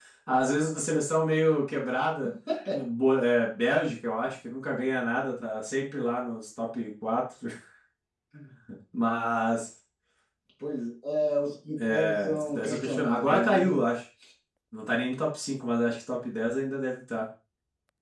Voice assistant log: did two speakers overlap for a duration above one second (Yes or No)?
Yes